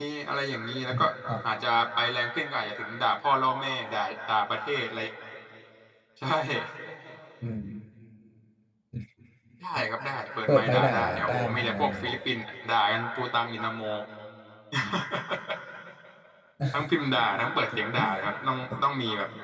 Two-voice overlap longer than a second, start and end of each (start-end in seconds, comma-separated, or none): 10.5-12.1